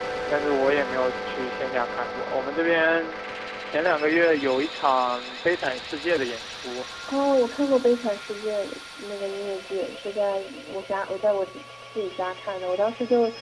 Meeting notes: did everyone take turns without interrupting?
Yes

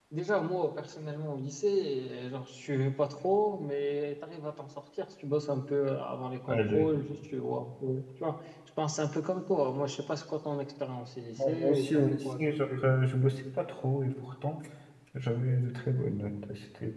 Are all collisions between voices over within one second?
No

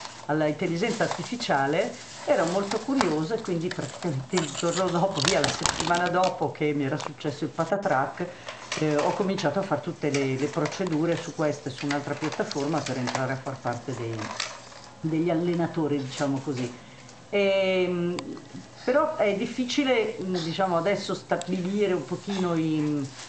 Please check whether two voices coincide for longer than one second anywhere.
No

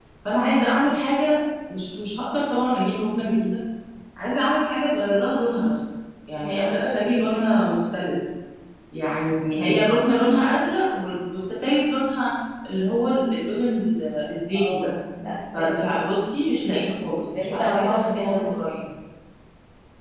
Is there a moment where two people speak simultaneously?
Yes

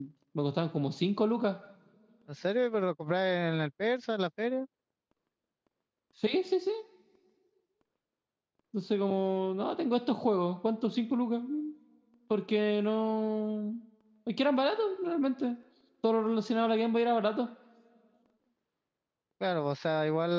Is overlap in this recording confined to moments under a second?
Yes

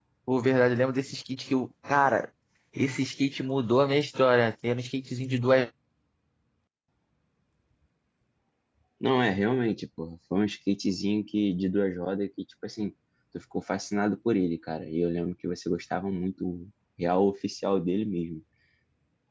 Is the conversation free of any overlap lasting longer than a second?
Yes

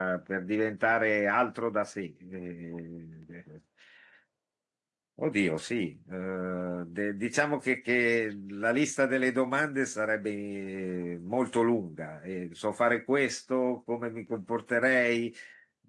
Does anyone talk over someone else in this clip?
No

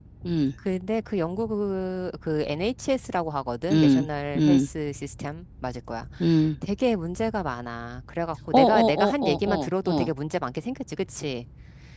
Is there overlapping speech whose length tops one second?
Yes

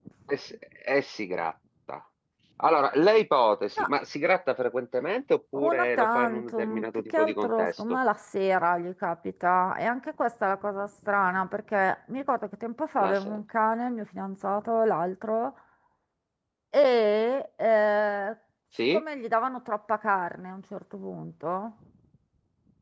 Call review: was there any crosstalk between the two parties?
Yes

